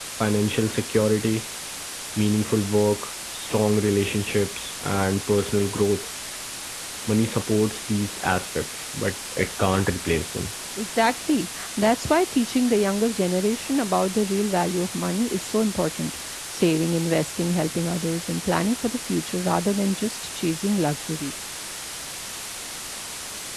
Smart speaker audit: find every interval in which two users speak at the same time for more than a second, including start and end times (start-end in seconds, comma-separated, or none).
none